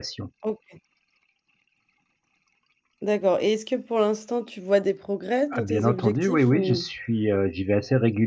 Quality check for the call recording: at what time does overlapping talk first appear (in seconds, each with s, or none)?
5.5 s